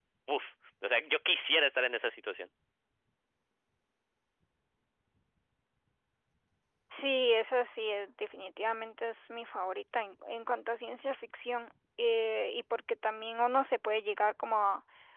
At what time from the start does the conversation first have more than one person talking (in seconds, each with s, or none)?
none